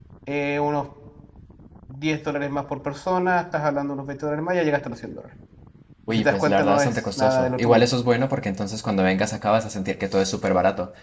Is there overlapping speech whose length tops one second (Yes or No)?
Yes